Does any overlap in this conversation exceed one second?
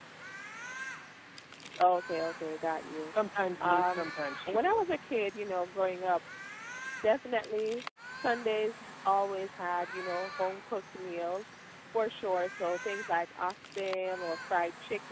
No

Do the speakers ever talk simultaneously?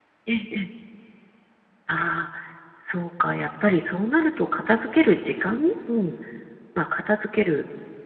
No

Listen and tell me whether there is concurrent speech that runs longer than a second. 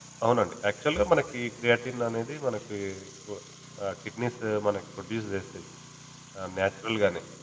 No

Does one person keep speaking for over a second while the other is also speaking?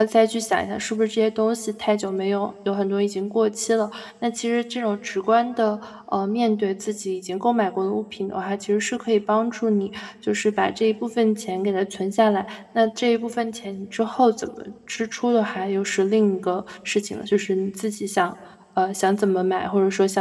No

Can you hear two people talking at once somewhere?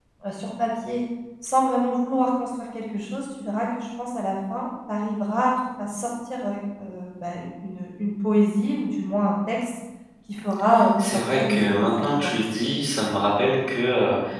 Yes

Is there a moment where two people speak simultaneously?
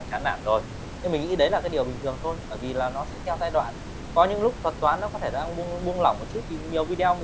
No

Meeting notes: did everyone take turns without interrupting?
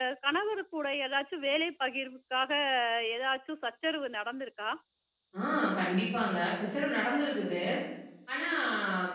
Yes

